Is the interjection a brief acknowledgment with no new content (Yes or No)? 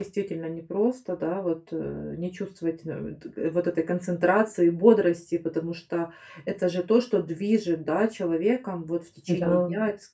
Yes